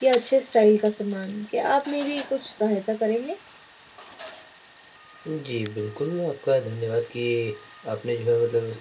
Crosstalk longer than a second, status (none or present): none